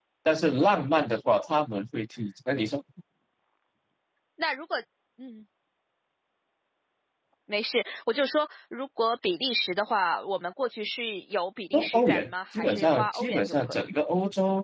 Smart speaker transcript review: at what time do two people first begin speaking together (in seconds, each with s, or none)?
11.7 s